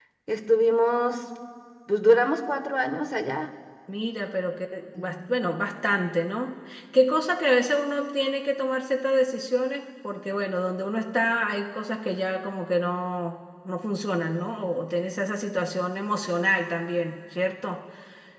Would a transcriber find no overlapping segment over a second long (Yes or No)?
Yes